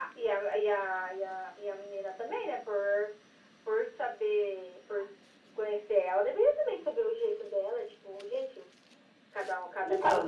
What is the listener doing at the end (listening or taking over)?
taking over